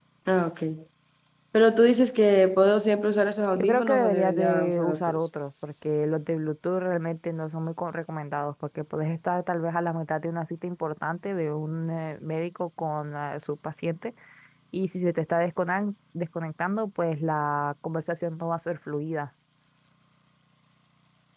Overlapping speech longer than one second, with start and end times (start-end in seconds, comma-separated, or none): 3.6-5.2